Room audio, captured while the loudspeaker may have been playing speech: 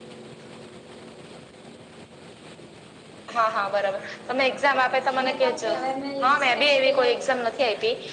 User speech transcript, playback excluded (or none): એમ એ કમ્પ્લીટ, હવે મે ઈ જી સી નેટ ની તૈયારી કરુ.